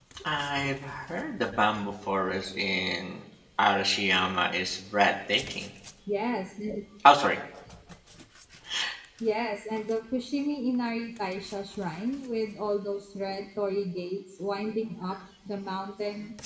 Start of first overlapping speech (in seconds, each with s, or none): none